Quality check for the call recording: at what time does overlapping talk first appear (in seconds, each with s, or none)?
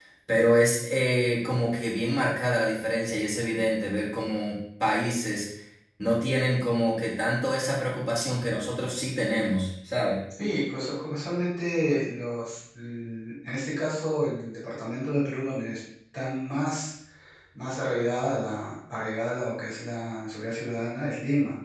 none